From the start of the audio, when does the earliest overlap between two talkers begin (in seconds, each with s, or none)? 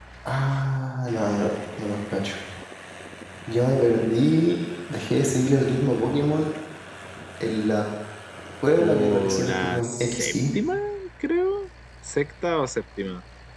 8.8 s